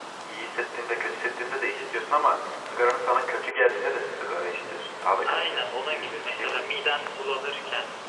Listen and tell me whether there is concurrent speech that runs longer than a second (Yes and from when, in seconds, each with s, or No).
Yes, from 5.2 s